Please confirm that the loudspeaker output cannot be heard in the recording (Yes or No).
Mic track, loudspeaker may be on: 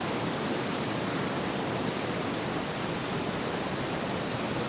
Yes